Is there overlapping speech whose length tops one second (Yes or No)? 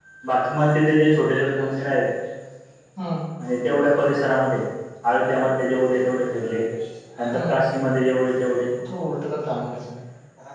No